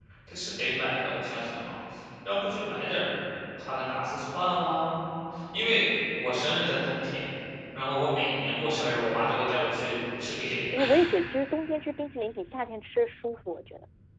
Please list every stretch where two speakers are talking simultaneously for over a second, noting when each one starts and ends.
none

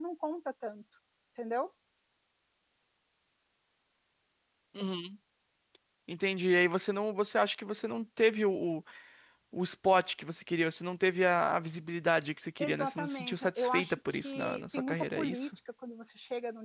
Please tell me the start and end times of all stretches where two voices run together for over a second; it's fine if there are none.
12.6-15.5

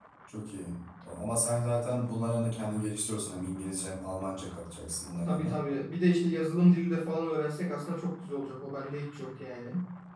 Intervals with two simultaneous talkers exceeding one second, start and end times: none

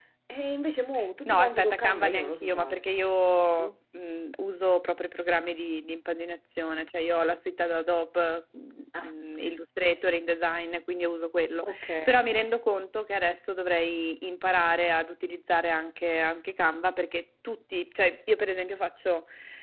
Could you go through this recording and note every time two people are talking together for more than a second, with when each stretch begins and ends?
1.2-2.9

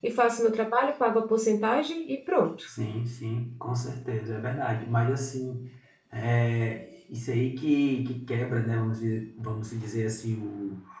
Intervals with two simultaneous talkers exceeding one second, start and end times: none

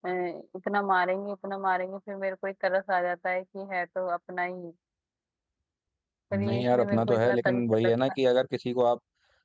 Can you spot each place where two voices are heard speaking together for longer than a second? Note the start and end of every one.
6.3-7.9

